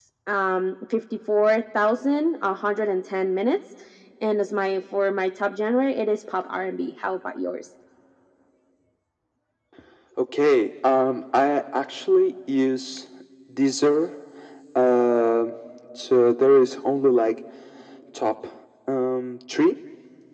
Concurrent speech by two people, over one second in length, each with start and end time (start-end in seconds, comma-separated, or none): none